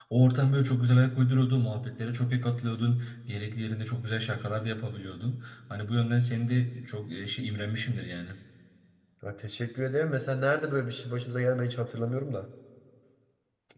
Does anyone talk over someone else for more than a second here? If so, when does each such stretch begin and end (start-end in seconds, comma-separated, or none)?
none